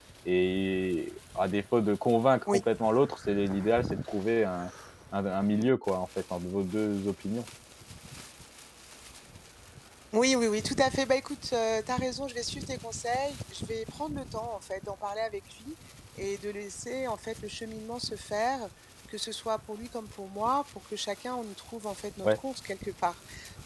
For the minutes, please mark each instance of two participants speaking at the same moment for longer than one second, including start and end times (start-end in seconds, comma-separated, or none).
none